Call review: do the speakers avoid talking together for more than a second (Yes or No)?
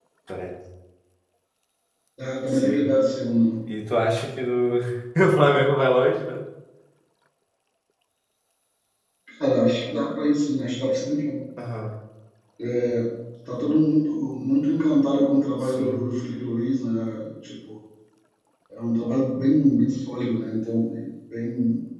Yes